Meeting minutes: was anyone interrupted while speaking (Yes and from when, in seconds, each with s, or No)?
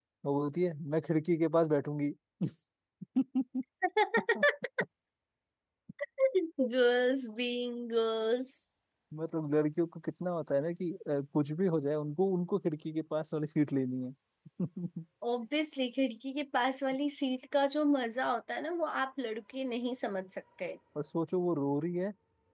No